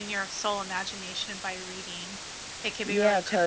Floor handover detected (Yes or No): Yes